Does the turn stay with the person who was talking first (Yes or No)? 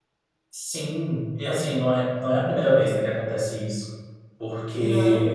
Yes